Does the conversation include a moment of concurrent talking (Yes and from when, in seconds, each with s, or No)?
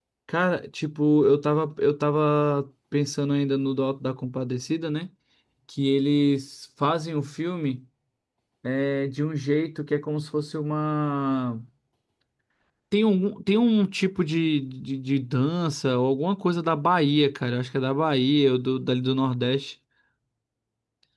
No